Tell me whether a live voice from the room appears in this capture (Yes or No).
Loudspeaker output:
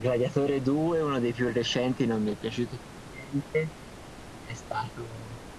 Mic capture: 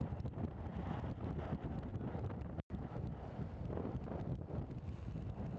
No